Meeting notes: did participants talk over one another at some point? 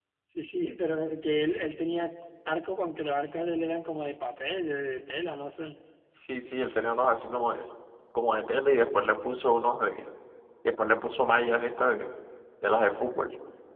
No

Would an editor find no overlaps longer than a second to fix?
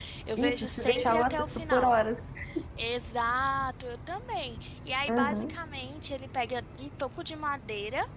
No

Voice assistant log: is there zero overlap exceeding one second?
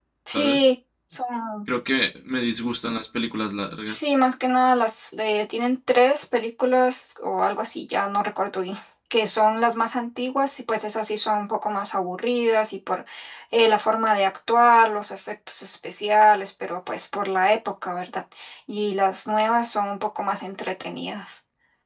Yes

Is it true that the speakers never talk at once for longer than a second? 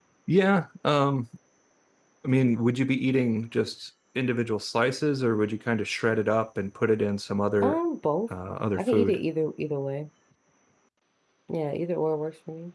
Yes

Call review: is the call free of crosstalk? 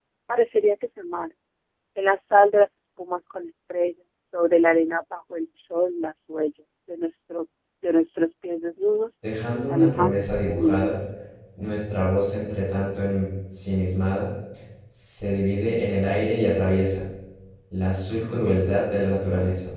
No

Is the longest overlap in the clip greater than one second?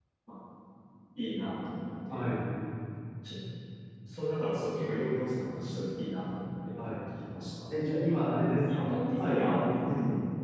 Yes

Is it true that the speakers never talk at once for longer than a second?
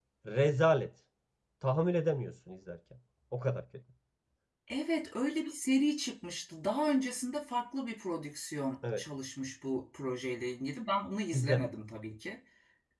Yes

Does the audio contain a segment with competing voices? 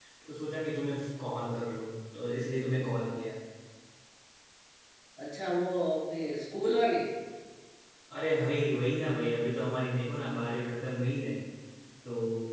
No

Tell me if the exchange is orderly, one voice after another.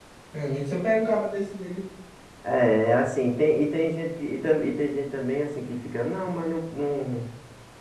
Yes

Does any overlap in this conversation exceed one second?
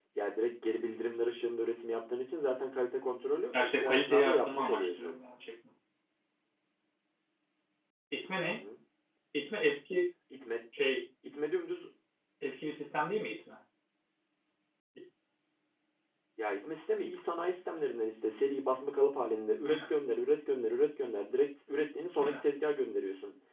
Yes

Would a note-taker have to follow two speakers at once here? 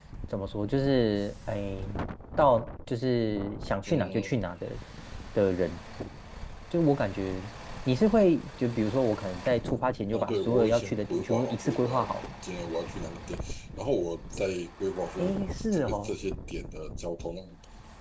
Yes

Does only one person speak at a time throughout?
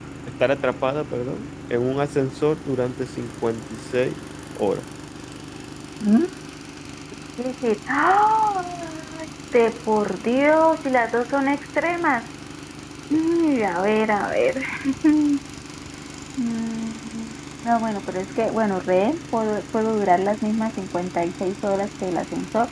Yes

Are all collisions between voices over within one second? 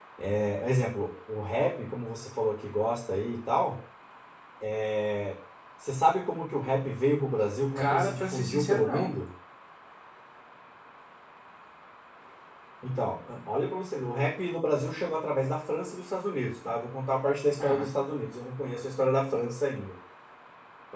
No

